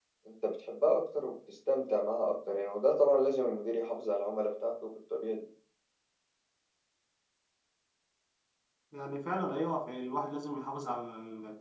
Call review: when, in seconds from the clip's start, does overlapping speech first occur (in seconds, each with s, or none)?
none